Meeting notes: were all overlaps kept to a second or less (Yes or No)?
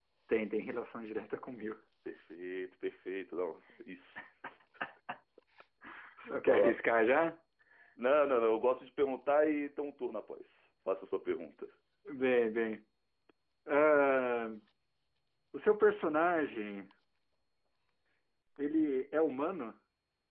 Yes